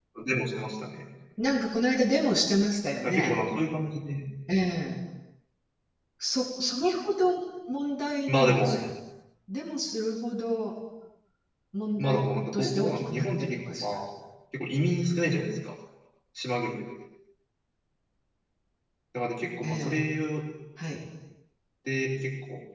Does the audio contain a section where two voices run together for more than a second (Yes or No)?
Yes